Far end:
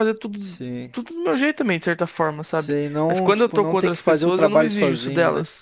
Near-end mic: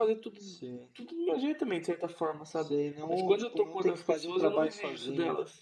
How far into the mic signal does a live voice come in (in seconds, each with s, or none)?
none